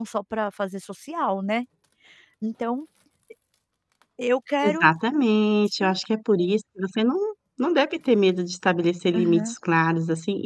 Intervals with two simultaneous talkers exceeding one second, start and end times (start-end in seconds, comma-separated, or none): none